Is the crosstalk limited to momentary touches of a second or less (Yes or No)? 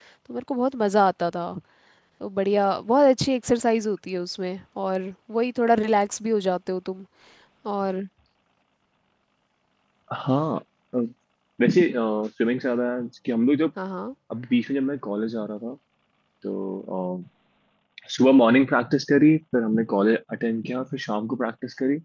Yes